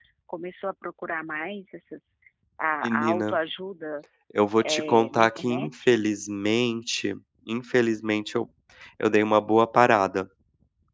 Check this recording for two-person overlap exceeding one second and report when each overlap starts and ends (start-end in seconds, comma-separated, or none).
4.6-6.0